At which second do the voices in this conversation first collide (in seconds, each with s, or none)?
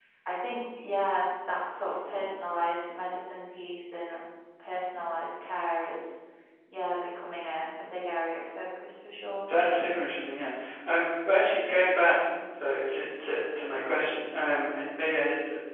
none